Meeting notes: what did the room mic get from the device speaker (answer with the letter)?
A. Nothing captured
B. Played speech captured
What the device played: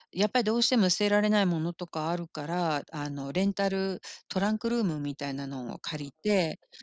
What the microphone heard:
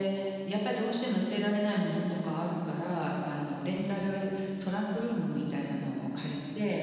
B